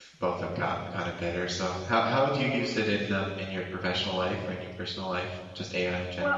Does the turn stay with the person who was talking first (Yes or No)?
No